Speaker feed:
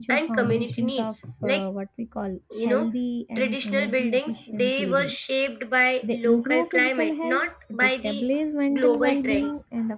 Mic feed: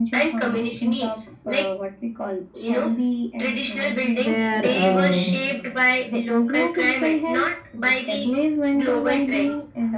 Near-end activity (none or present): present